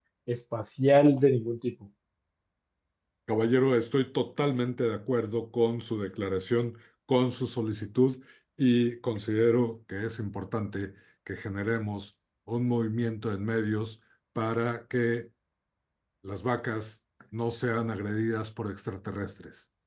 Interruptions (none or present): none